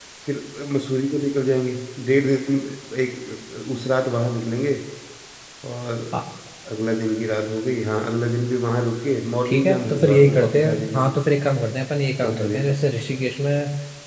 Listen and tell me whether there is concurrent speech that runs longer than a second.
Yes, from 9.5 s

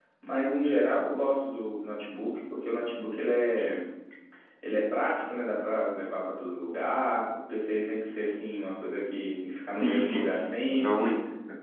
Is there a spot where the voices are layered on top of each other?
Yes, from 9.8 s

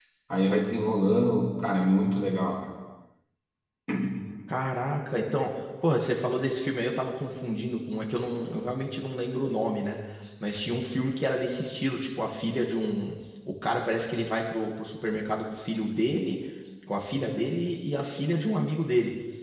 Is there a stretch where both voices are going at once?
No

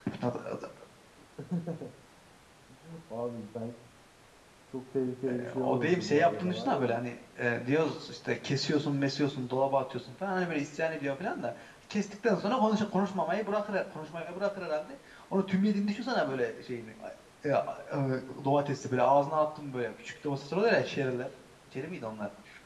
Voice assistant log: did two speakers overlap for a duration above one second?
Yes, from 5.3 s

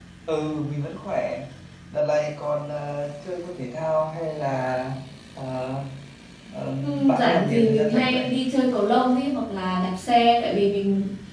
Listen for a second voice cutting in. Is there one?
Yes, from 6.8 s

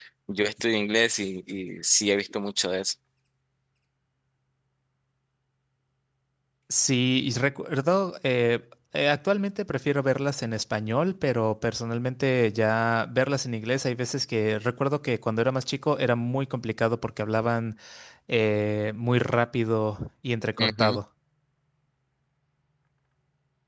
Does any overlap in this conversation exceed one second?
No

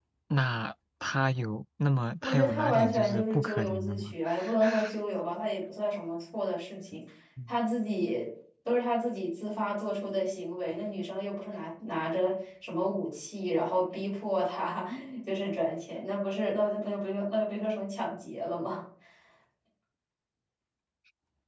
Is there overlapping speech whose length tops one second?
Yes, from 2.2 s

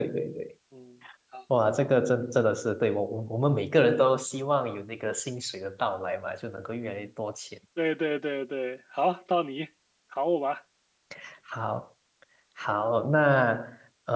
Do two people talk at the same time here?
No

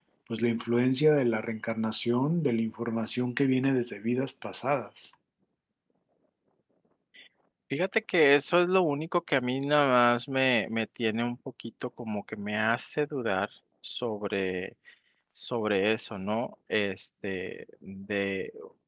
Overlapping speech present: No

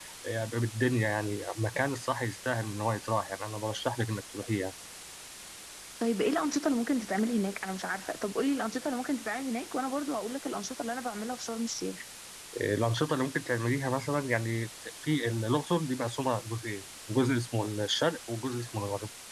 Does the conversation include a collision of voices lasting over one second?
No

